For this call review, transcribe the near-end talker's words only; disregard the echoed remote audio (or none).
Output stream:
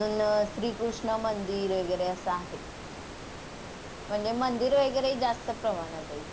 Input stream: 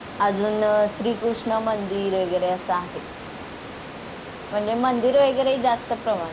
none